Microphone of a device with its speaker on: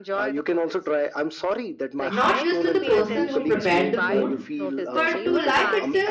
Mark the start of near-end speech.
2 s

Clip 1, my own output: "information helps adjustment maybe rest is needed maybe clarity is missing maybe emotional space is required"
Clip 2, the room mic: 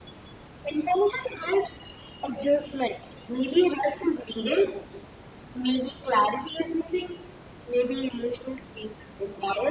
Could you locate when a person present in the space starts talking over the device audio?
none

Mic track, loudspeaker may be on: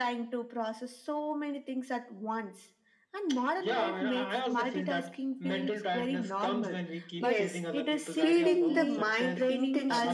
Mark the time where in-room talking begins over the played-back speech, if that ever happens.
7 s

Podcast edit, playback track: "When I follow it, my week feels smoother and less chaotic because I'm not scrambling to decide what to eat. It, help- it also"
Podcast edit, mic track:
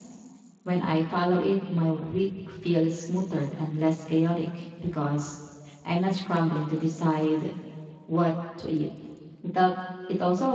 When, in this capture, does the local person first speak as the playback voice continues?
none

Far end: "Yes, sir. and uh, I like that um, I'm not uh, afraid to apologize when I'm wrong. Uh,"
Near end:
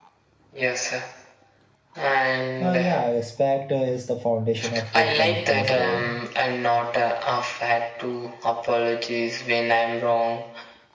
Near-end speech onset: 3 s

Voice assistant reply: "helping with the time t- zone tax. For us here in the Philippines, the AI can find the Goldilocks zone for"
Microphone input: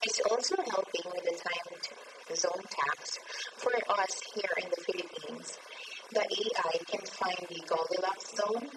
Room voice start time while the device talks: none

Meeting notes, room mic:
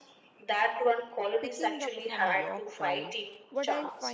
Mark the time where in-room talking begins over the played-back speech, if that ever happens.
1 s

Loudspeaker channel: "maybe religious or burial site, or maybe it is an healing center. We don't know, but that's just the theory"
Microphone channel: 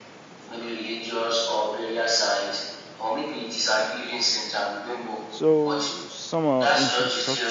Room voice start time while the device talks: 5 s

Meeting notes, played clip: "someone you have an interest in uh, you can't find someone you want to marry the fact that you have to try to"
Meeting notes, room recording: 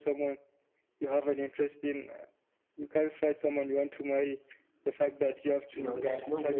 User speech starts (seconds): 6 s

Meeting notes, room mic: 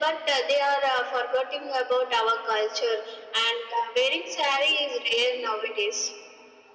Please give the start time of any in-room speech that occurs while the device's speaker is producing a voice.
none

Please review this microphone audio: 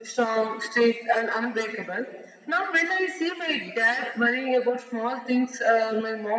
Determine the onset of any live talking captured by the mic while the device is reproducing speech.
none

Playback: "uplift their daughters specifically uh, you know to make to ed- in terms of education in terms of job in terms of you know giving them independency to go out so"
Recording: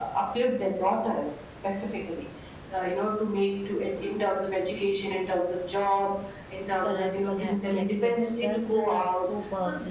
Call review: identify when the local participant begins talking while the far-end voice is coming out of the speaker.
7 s

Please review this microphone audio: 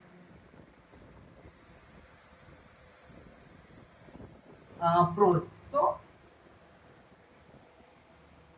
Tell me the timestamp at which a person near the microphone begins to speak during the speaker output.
5 s

